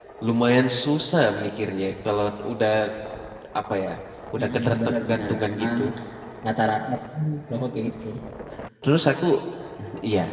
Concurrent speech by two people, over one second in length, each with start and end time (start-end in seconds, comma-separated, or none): 4.4-5.8